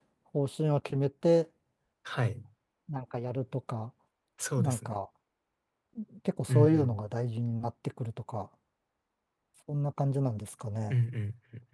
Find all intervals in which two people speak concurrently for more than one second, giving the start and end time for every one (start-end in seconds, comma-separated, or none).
none